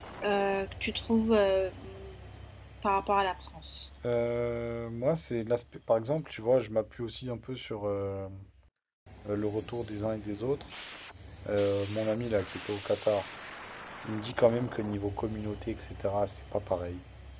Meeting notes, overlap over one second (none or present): none